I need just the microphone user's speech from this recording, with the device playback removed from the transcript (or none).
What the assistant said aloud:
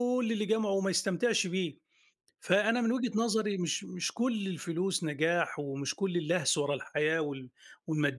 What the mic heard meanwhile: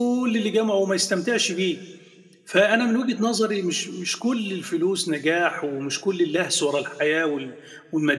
none